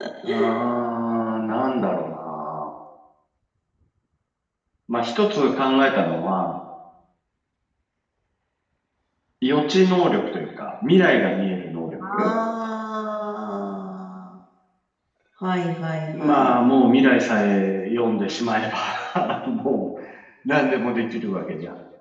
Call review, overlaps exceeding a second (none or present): none